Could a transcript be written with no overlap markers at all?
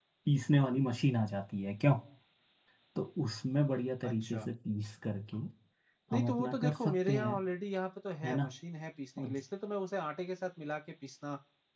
No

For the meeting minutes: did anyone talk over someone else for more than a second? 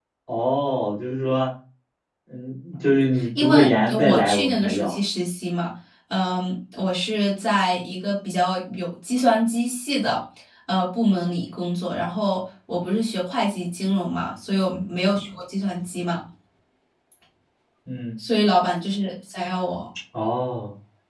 Yes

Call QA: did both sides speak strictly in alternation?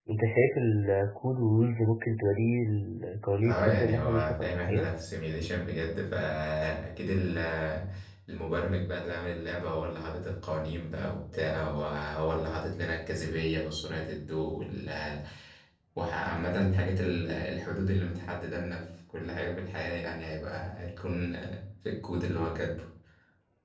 No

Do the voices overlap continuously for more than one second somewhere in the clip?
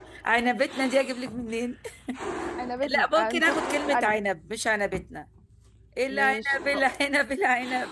Yes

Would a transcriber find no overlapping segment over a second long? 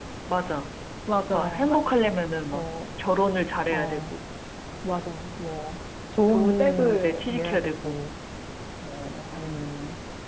No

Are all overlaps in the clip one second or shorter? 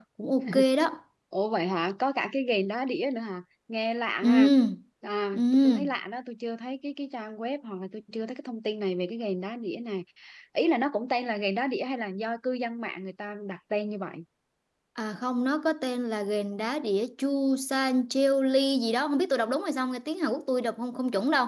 Yes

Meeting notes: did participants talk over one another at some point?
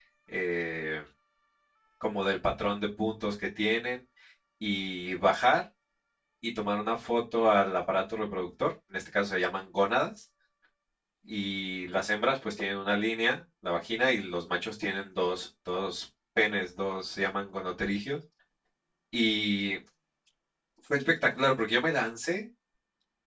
No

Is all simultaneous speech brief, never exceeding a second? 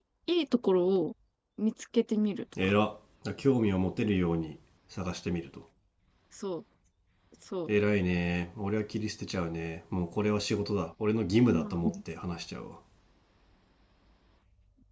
Yes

